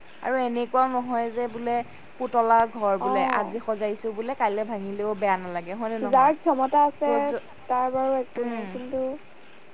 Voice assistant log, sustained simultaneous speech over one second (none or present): none